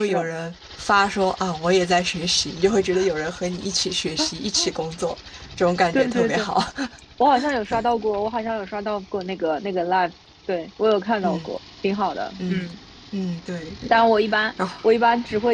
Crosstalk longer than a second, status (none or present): none